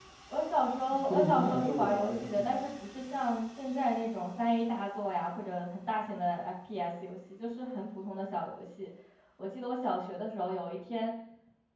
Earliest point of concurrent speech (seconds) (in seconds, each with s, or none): 1.1 s